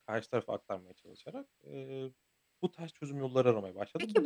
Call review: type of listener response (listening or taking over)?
taking over